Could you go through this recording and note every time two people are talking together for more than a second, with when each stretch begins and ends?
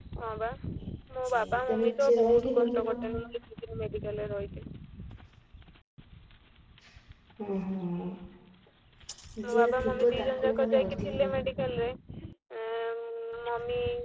1.2-2.9, 9.4-11.1

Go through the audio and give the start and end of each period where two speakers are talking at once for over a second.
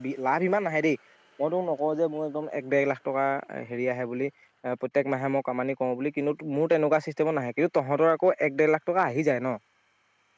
none

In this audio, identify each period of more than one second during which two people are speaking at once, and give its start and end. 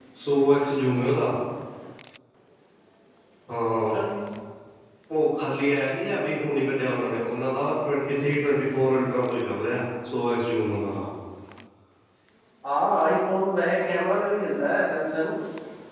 none

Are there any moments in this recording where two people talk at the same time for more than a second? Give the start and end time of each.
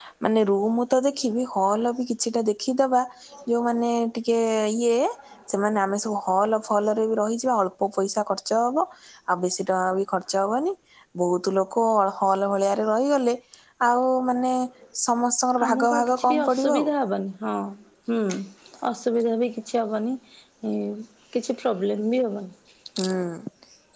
15.6-16.9

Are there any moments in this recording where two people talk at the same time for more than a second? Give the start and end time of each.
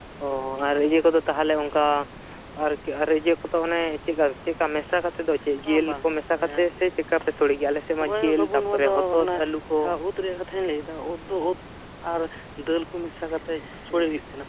7.9-9.3

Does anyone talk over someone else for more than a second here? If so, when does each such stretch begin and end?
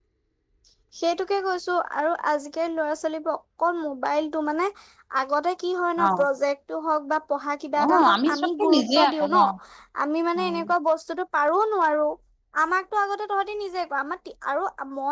7.8-9.4

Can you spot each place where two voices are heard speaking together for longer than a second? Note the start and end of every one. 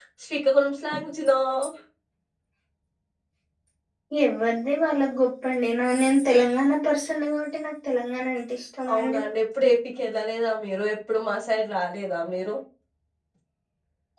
none

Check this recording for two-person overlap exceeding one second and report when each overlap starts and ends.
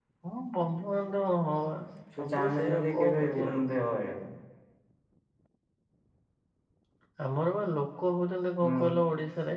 2.2-3.7

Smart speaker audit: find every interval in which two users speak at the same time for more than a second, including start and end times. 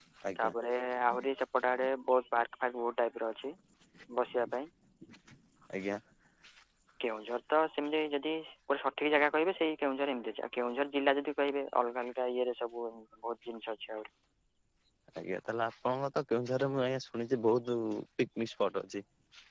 none

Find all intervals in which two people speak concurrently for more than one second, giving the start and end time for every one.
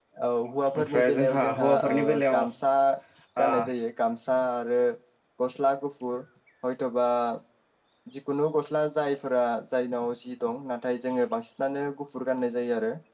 0.8-2.4

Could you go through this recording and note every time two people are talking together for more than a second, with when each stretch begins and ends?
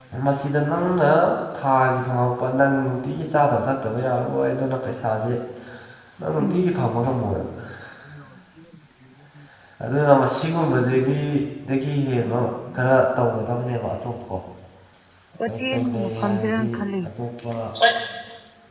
15.5-16.7

